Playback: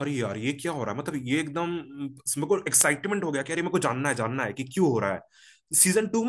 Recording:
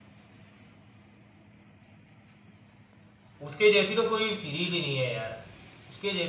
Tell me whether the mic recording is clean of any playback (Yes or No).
Yes